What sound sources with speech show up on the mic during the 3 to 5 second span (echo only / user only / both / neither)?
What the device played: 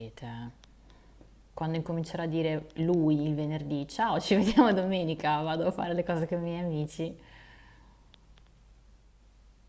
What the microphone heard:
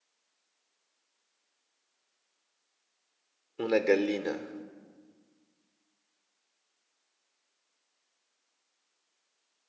user only